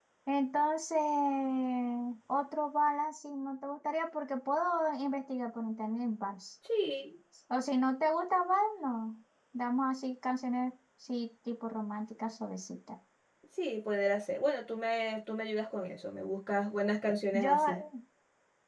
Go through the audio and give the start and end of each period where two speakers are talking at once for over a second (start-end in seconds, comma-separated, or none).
none